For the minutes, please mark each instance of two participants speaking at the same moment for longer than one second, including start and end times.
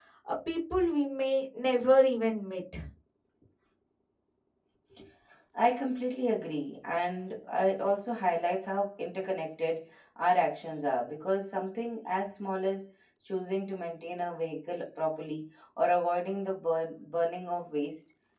none

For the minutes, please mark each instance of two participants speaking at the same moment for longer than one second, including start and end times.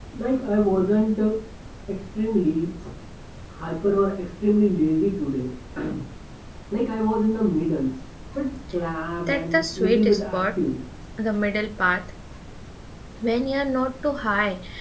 9.3-10.6

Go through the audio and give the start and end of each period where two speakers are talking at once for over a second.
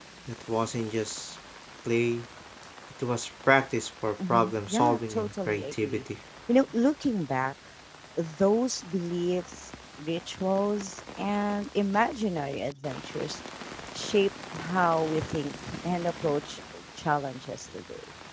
4.3-6.0

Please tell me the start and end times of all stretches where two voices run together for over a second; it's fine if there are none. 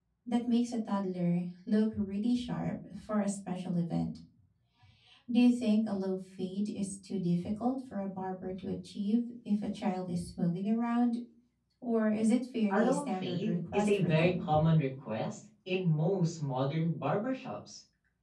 12.7-14.4

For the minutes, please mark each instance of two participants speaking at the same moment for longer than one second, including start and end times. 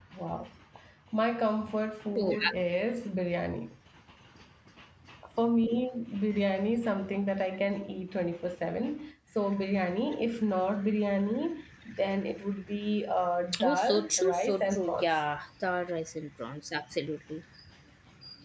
13.7-15.1

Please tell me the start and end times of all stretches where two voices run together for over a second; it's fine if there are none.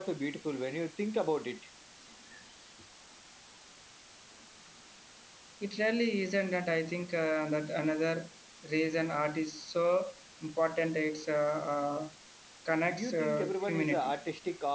12.8-14.1

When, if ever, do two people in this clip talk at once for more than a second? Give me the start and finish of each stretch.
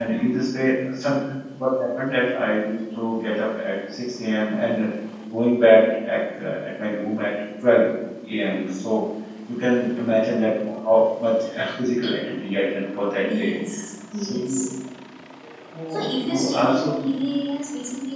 15.9-17.1

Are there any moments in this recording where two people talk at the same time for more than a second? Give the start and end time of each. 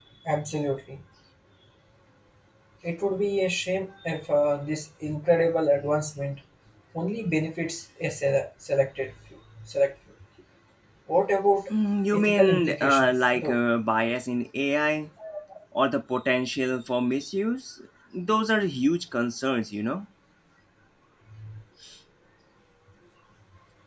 12.1-13.6

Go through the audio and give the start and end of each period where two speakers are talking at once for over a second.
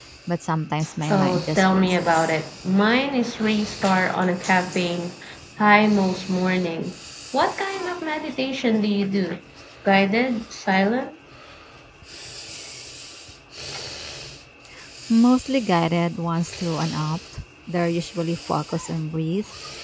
1.1-2.3

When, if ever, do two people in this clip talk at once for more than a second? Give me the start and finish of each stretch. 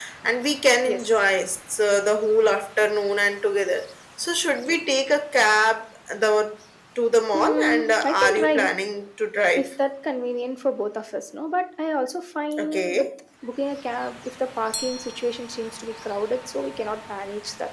7.3-8.7

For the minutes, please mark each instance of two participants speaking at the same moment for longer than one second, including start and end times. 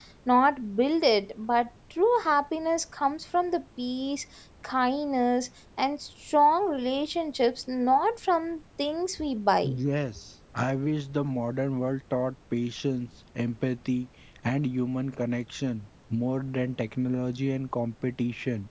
none

